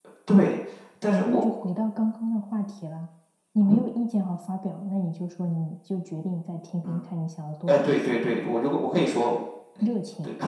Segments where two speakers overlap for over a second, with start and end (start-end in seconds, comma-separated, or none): none